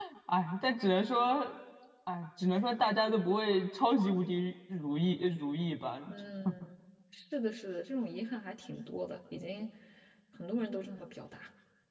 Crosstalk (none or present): none